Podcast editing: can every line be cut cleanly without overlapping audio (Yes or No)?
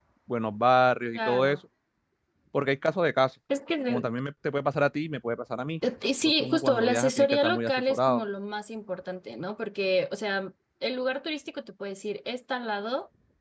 No